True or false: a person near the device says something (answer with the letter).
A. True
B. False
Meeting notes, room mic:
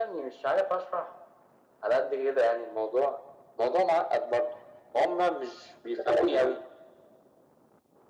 B